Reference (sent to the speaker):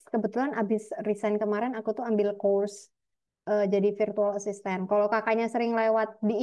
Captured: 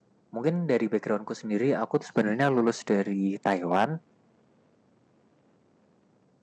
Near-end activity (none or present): present